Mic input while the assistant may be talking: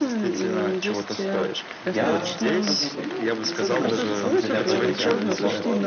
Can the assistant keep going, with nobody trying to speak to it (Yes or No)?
No